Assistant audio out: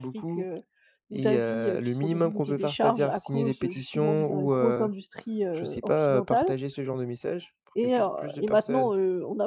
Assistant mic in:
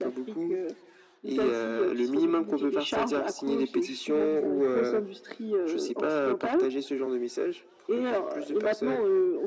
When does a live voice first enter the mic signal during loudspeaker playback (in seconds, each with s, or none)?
none